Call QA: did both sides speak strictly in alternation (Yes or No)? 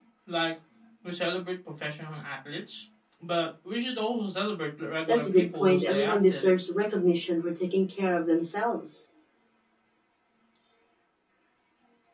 No